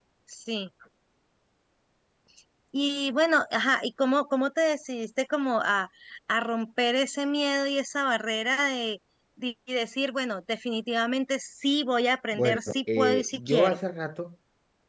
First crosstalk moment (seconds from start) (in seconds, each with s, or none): 12.3 s